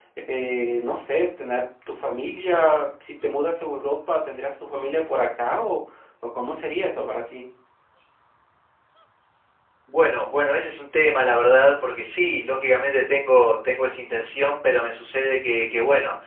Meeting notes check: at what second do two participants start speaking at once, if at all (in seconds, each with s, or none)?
none